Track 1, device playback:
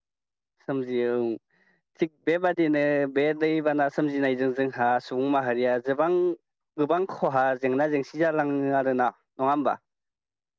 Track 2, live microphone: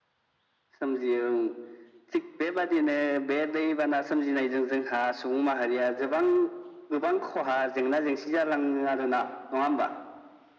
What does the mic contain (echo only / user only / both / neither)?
echo only